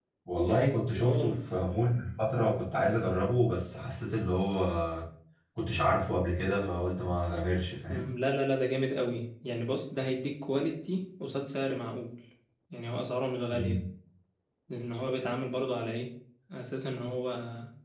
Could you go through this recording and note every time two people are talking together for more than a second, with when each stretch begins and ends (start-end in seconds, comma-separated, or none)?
none